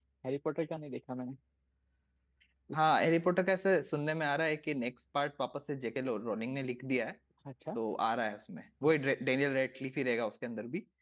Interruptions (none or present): none